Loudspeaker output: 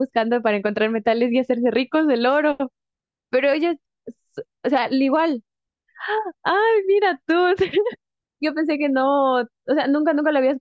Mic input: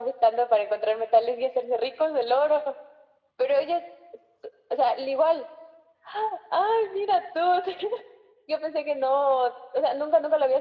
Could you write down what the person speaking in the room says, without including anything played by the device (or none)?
none